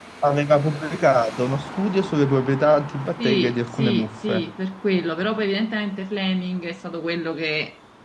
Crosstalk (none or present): present